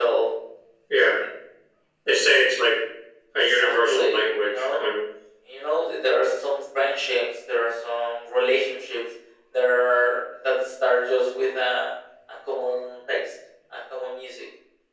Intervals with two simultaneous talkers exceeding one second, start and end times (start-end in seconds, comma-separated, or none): 3.5-4.8